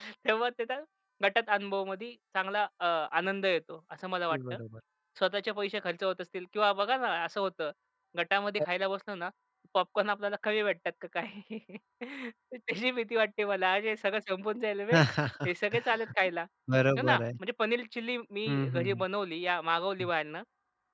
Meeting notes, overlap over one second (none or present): none